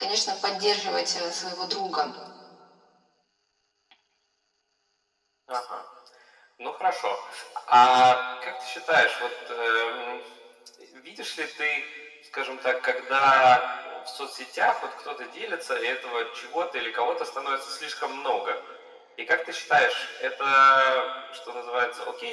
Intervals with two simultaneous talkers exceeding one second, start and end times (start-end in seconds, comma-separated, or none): none